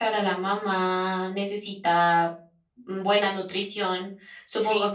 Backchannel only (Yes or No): Yes